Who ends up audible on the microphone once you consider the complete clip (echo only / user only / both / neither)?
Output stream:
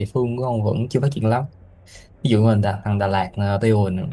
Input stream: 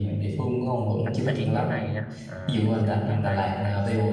both